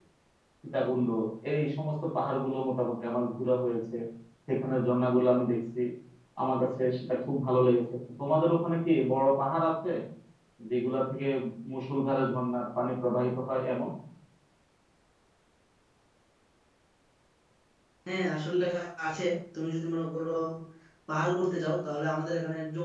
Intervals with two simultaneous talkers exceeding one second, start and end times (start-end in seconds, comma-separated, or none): none